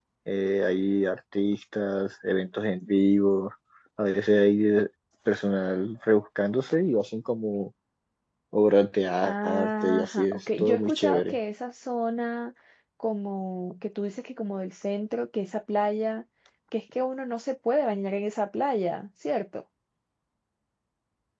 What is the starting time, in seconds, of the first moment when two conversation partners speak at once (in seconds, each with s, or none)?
9.2 s